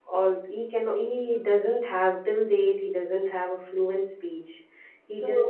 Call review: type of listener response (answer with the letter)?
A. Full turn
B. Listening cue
B